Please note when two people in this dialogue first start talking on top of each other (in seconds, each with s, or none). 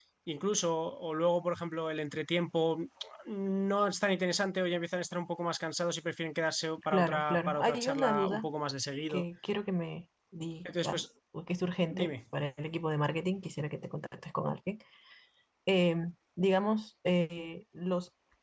6.9 s